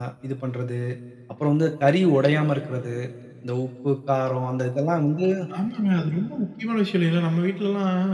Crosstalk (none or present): none